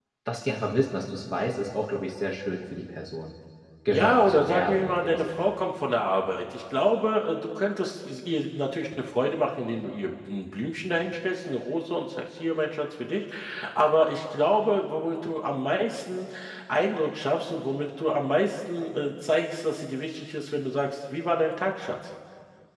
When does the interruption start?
3.9 s

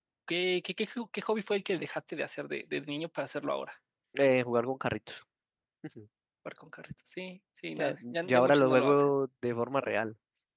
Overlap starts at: 7.8 s

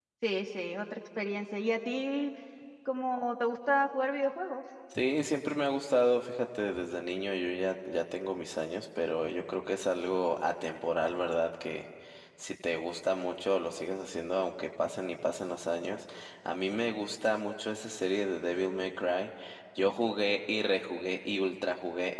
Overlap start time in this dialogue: none

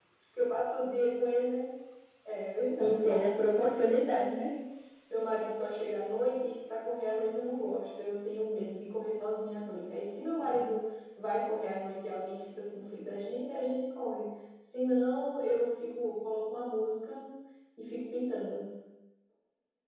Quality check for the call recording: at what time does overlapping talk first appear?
2.8 s

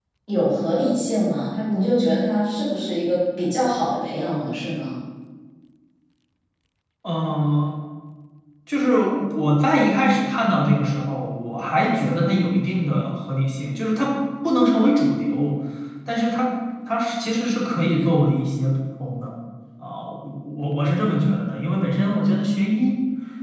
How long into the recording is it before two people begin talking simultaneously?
none

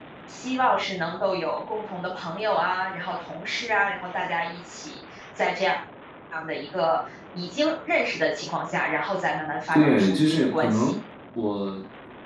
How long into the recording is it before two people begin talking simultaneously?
9.7 s

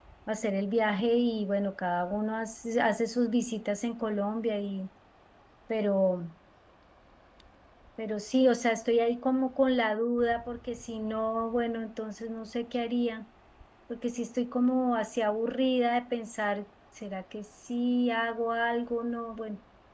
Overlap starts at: none

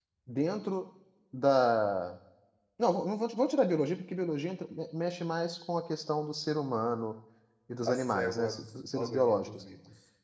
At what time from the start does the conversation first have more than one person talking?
7.8 s

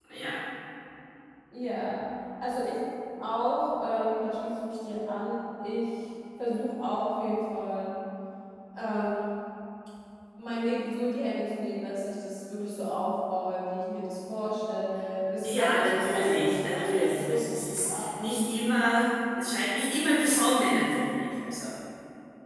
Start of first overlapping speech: 15.4 s

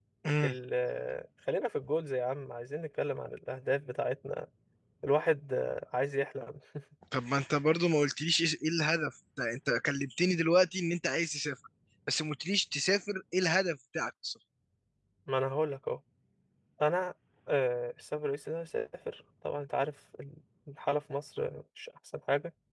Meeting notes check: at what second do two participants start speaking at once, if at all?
none

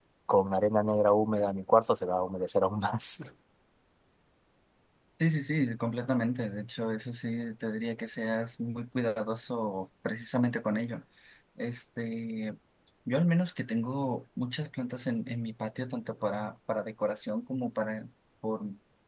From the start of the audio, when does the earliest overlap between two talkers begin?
none

